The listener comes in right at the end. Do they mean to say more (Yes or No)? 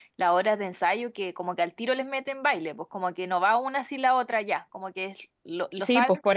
Yes